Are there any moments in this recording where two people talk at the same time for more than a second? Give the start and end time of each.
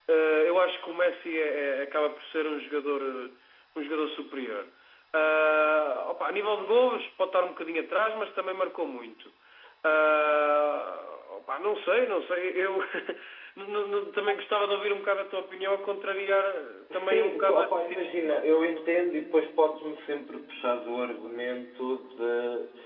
16.9-18.4

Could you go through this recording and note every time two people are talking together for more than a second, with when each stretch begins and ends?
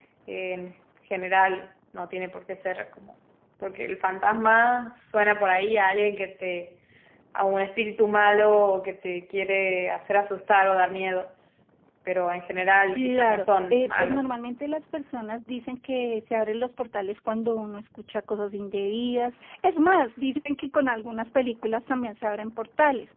12.9-14.2

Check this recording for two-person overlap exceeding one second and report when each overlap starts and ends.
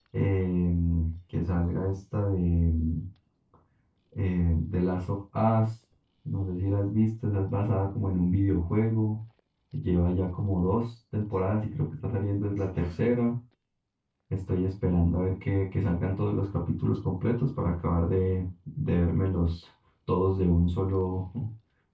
none

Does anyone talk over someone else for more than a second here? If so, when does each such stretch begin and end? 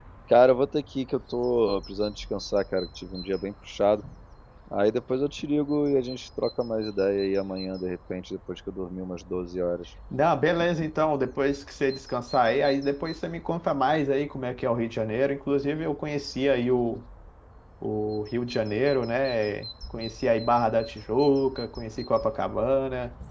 none

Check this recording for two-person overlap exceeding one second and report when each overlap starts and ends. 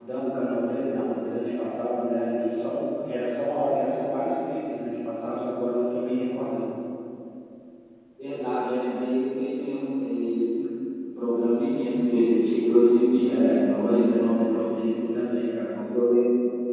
13.2-14.8

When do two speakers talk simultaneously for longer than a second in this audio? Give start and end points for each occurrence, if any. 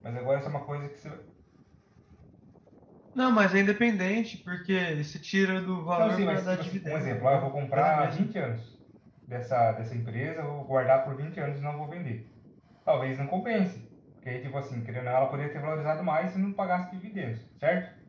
6.0-8.3

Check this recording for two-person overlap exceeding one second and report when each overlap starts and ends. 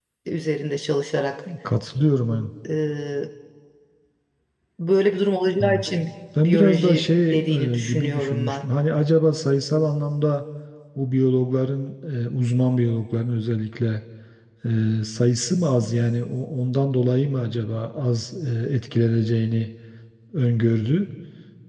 6.4-8.6

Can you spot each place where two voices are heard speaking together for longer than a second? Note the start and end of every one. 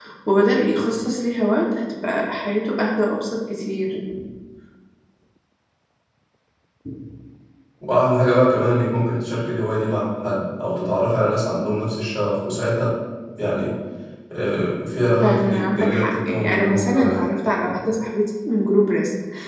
15.2-17.3

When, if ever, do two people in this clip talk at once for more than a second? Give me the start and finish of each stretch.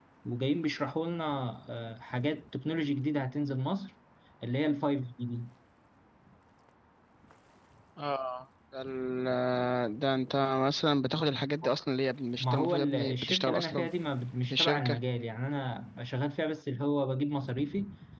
12.3-13.9

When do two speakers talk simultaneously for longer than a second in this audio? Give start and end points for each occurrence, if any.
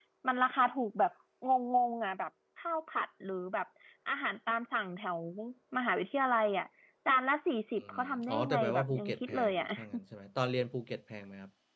7.9-9.6

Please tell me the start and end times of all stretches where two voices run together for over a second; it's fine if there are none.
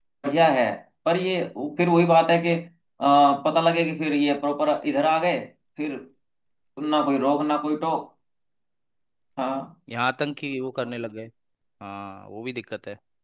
none

